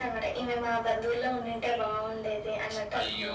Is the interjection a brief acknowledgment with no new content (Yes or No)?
No